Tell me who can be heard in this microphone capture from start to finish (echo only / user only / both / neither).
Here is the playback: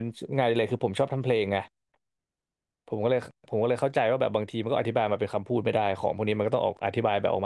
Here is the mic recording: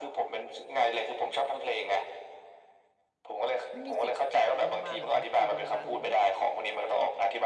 both